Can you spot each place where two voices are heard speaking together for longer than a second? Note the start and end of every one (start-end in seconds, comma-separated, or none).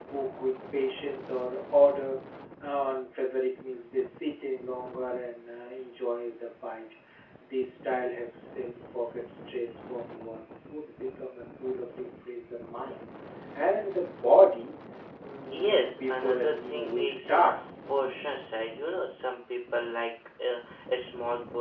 15.5-17.4